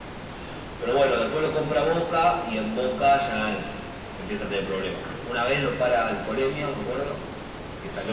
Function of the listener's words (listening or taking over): listening